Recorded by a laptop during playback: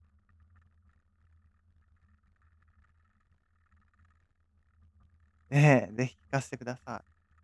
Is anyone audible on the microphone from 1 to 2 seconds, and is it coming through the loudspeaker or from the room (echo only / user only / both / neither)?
neither